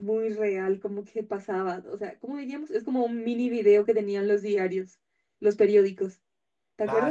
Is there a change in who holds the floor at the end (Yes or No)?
Yes